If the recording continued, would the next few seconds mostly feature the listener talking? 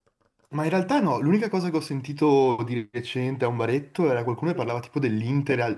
No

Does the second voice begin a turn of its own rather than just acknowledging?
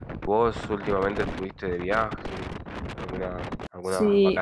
Yes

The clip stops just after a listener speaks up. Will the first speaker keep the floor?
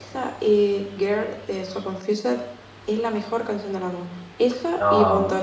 No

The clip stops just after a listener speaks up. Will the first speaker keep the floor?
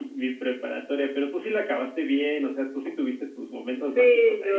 No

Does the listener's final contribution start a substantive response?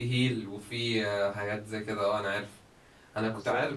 No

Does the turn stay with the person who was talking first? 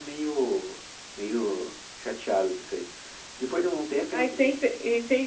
No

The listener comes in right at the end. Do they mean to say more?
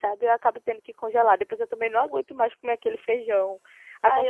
Yes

